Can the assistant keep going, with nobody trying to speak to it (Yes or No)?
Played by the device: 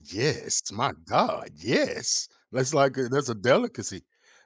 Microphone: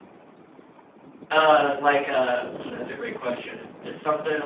No